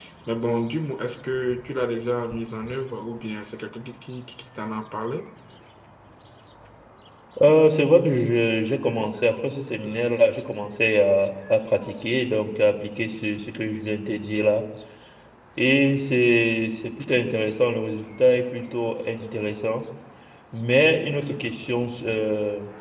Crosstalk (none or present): none